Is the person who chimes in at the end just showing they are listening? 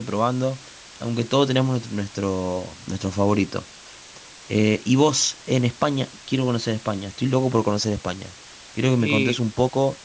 Yes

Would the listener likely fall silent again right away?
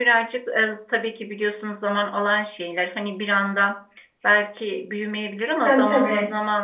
Yes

